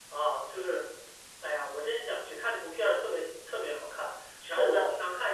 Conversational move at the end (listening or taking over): listening